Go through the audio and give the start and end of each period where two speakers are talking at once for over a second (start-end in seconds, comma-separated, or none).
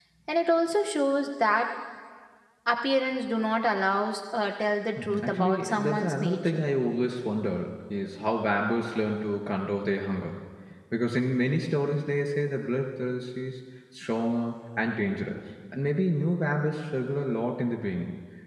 5.0-6.6